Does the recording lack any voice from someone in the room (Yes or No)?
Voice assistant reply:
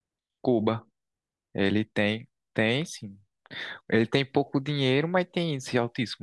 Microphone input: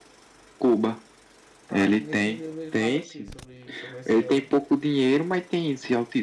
No